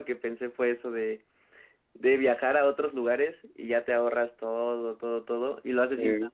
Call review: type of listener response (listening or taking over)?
listening